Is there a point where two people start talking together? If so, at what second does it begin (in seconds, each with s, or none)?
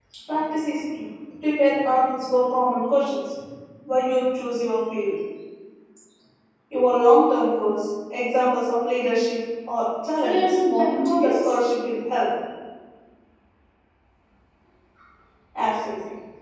10.2 s